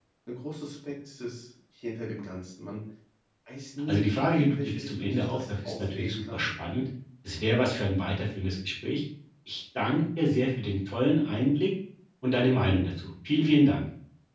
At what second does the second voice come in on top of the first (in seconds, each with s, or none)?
3.9 s